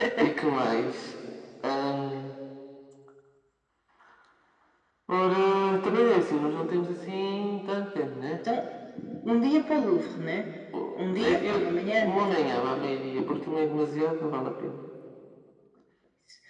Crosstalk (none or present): present